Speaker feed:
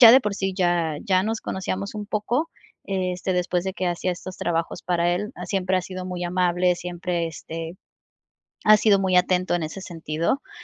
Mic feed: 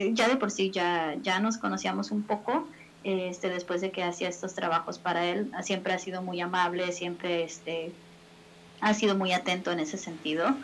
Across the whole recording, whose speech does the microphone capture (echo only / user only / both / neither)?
echo only